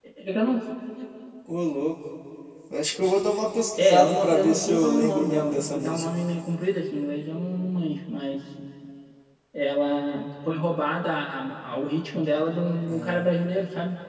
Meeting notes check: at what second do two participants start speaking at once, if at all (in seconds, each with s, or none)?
3.8 s